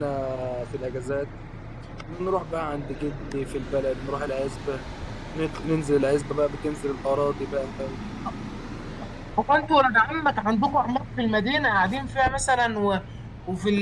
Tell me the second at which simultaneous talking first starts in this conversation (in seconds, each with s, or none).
none